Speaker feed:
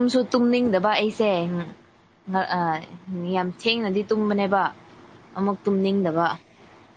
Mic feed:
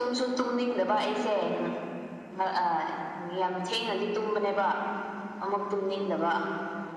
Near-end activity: none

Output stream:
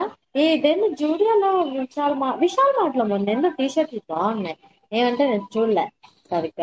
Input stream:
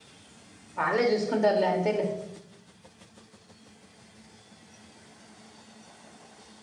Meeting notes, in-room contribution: present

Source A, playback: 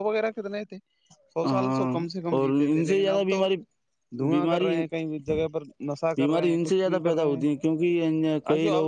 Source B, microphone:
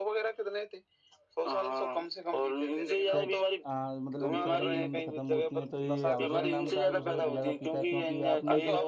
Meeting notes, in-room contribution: present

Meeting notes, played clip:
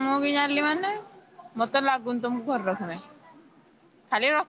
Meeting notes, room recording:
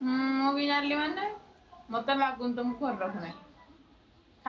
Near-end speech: none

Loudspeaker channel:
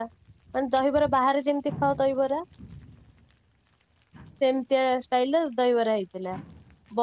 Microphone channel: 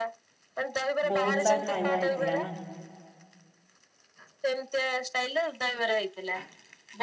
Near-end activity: present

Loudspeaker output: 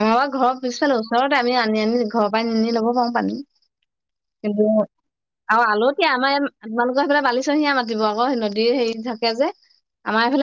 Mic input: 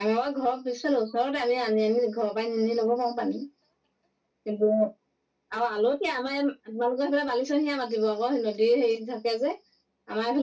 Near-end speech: none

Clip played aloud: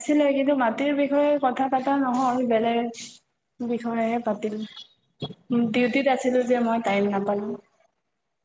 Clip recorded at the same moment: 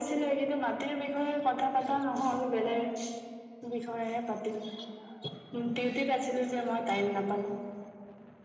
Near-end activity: present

